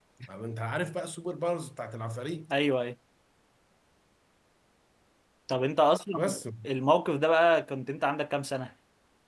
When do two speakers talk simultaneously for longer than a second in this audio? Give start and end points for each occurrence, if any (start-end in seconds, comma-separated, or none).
none